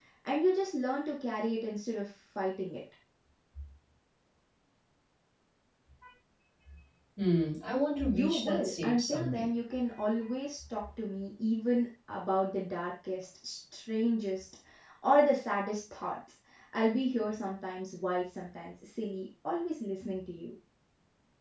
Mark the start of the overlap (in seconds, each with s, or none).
8.1 s